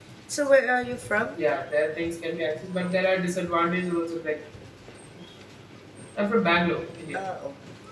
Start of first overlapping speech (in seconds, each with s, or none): none